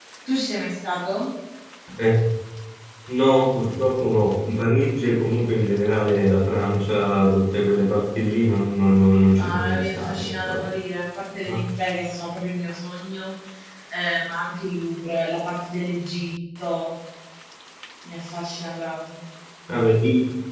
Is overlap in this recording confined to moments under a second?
No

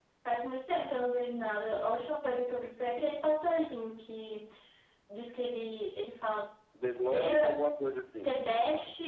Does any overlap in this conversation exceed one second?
No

